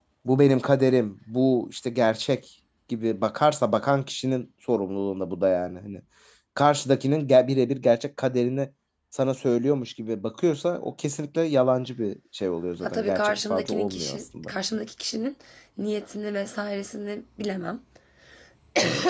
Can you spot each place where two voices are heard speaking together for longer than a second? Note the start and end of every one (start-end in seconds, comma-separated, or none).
12.8-14.5